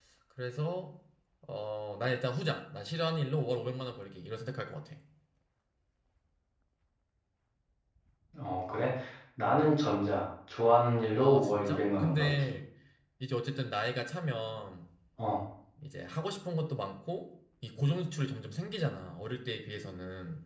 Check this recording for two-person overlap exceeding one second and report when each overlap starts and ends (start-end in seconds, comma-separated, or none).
11.1-12.5